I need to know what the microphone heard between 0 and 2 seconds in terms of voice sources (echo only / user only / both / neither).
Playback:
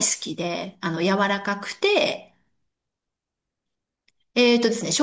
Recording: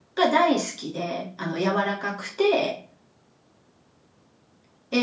echo only